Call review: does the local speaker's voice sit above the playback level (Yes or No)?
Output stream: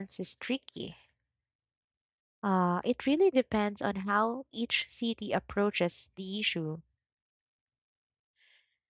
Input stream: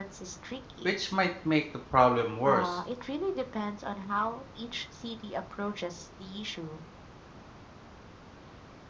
Yes